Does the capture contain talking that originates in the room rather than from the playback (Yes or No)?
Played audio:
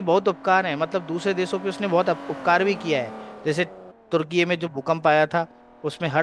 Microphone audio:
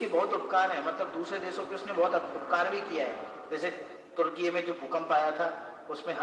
No